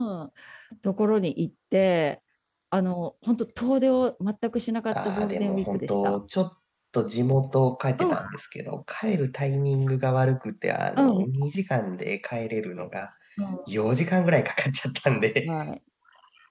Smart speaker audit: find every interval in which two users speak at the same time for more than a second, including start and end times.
4.9-6.2

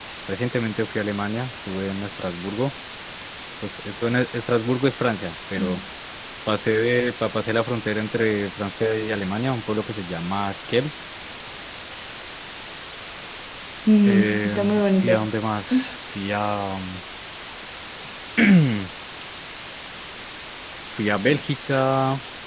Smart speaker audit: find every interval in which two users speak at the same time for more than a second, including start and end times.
14.1-15.3

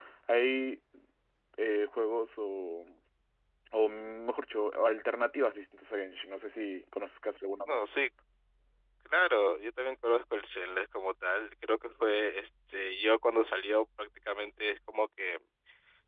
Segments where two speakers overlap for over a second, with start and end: none

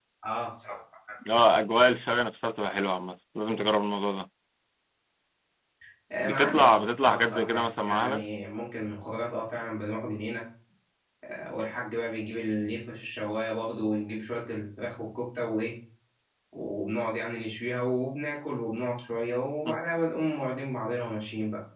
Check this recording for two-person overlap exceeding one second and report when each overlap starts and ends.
6.2-8.2

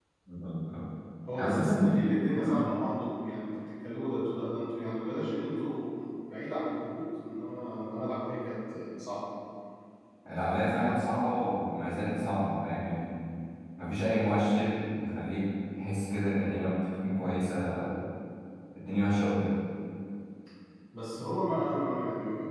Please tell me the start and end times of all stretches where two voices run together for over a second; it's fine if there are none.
1.3-2.7

